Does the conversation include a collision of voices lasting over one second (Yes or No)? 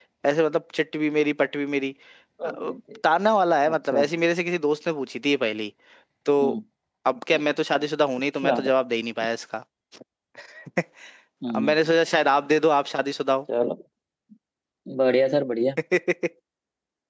No